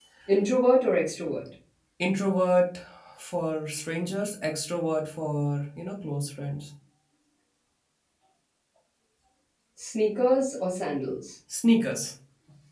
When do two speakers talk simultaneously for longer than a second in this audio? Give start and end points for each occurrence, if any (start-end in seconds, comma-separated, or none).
none